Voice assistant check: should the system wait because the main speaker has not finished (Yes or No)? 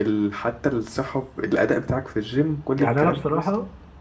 No